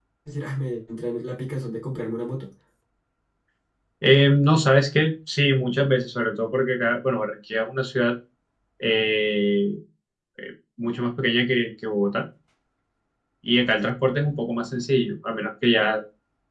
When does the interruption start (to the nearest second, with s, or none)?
none